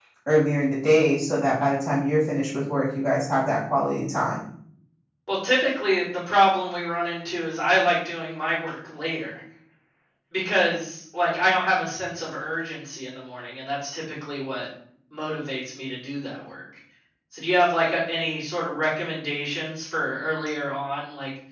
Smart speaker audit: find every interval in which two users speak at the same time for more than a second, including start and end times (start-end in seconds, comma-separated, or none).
none